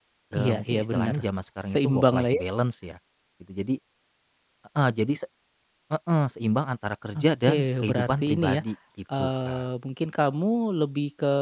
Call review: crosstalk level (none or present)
present